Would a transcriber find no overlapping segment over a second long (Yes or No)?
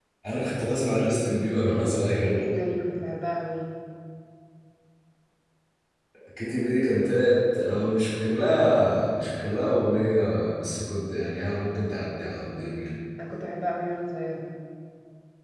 Yes